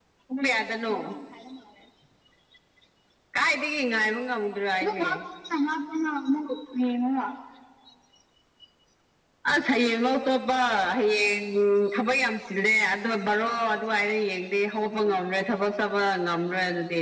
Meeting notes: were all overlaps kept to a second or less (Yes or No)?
Yes